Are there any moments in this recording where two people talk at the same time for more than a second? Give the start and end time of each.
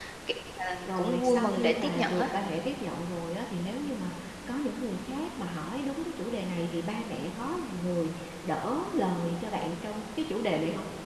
1.0-2.3

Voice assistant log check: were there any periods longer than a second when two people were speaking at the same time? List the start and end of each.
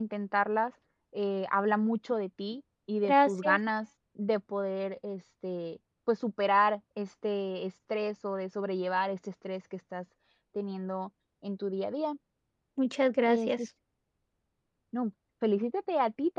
none

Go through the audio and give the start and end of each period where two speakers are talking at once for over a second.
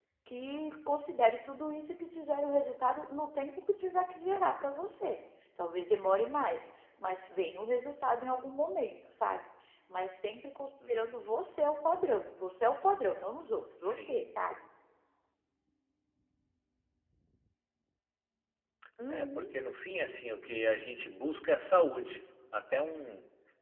none

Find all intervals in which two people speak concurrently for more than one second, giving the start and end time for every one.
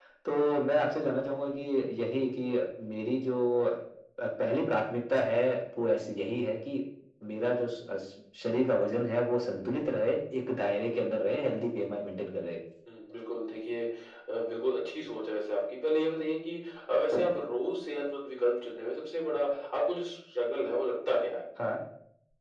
none

